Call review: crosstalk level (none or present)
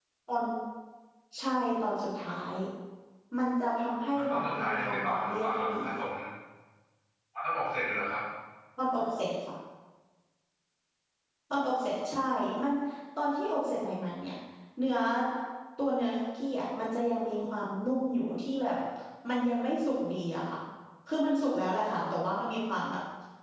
present